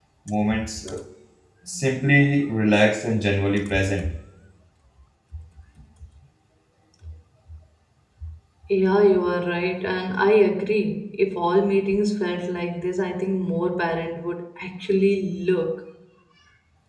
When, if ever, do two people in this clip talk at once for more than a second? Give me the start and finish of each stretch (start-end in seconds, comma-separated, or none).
none